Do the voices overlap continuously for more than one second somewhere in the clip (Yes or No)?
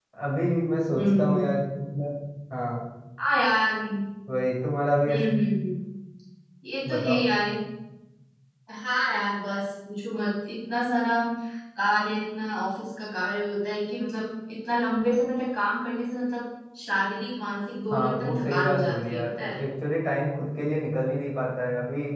Yes